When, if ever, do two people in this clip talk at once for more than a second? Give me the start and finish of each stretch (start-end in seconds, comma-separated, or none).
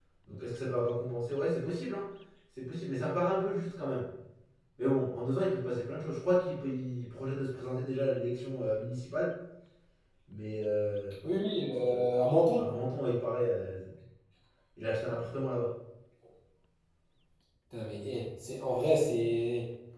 none